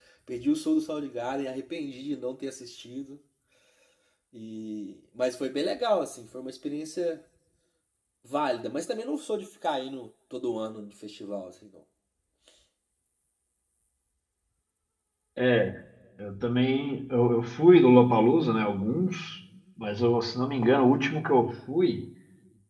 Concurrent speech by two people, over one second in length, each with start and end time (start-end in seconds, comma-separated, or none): none